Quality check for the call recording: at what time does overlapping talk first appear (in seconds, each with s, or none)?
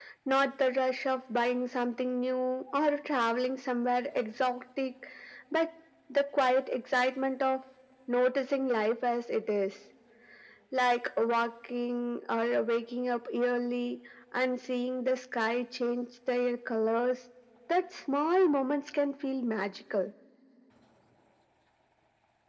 none